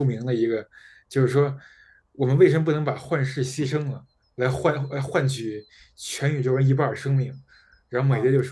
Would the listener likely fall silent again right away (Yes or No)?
Yes